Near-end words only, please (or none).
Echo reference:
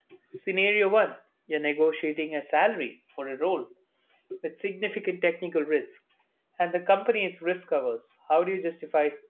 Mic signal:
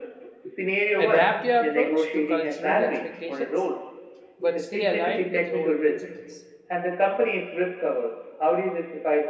Adapt your approach to cultural expectations, but stay aligned with your own principles.